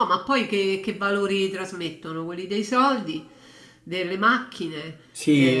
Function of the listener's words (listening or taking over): taking over